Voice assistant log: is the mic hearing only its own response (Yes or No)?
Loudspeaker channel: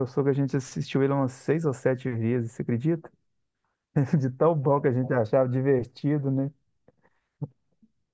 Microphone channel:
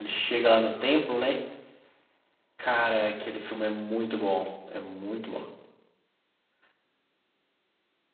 No